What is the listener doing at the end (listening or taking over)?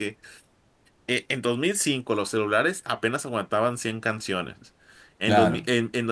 listening